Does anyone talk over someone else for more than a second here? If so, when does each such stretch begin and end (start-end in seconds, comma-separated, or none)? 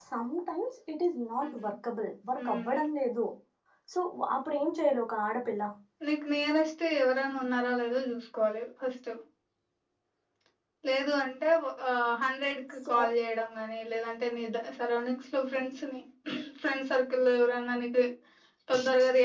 none